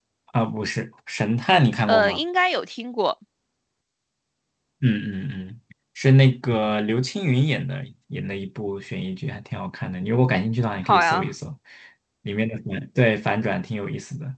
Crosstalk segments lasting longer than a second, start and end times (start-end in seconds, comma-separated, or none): none